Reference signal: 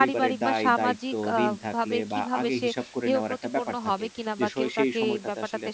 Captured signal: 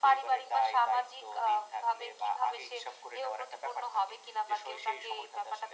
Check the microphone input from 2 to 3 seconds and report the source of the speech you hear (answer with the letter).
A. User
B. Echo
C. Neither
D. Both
B